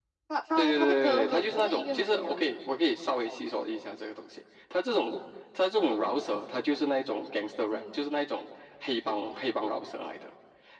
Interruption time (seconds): 0.6 s

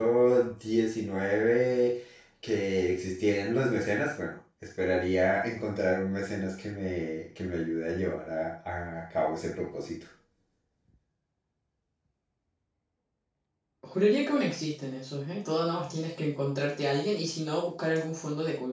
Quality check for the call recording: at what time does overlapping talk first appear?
none

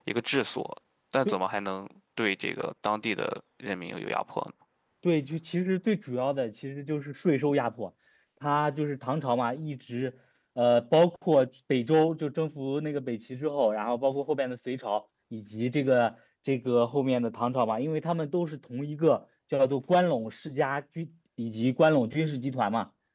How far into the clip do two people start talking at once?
none

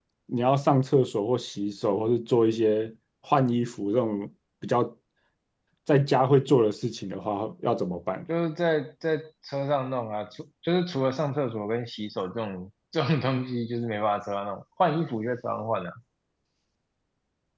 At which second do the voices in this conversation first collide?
none

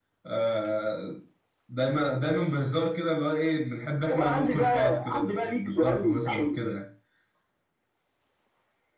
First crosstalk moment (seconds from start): 4.1 s

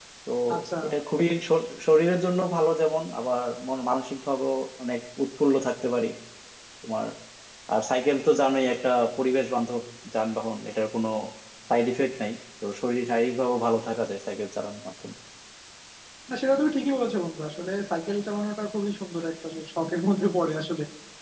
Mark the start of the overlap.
none

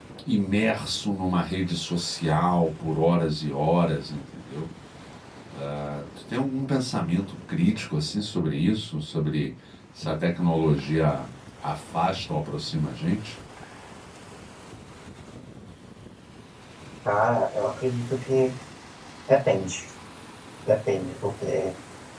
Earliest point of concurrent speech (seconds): none

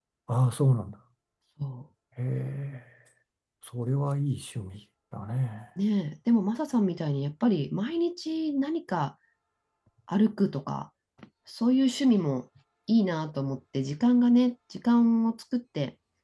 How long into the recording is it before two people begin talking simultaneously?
none

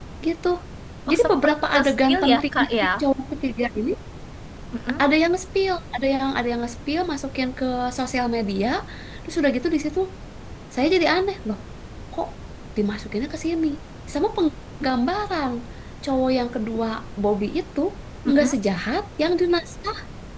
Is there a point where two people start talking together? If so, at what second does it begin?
1.1 s

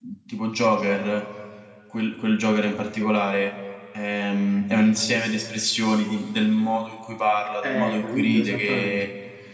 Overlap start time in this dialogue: 7.6 s

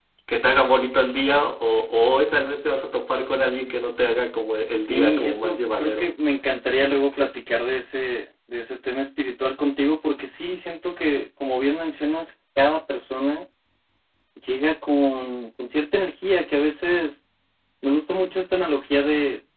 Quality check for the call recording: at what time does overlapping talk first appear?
4.7 s

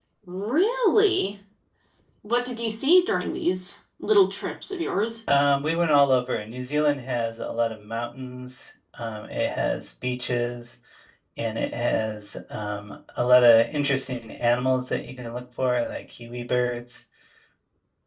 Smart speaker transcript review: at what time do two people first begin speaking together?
none

